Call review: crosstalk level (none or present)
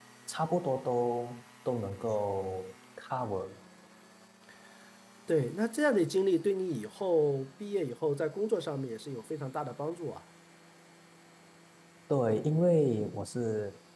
none